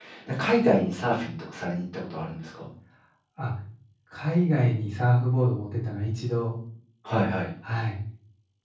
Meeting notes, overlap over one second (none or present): none